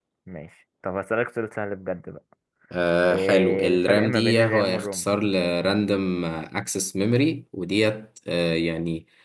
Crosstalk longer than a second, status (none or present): present